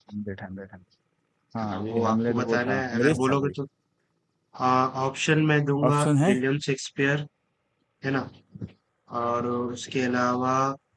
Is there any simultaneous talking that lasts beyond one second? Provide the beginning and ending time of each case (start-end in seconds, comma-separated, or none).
1.6-3.5